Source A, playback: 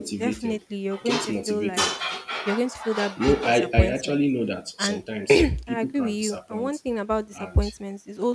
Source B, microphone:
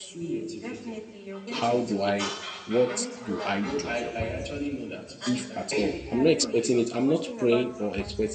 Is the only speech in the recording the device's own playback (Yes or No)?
No